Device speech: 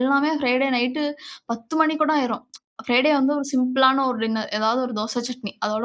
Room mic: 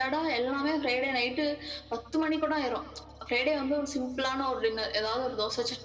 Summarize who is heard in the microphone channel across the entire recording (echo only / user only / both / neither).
echo only